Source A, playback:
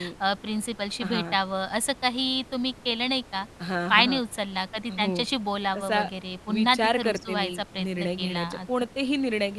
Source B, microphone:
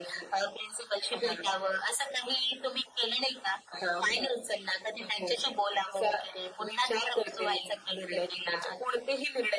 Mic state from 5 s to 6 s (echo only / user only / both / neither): echo only